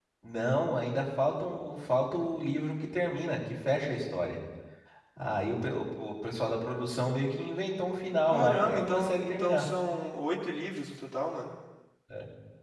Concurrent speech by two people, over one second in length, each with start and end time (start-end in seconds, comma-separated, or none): 8.3-9.7